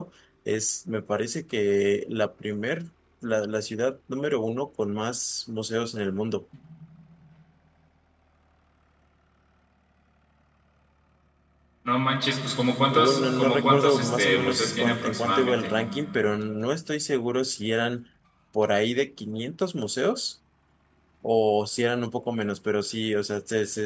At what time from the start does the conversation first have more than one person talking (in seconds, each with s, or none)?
12.9 s